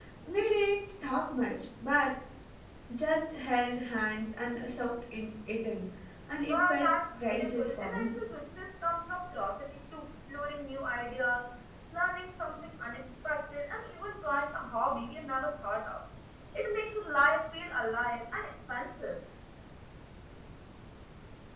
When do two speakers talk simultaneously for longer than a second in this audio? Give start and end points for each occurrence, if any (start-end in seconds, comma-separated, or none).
6.5-8.2